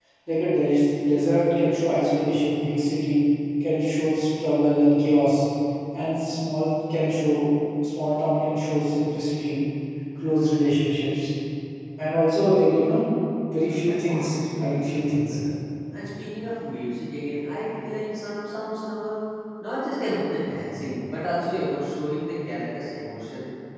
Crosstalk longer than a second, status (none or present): present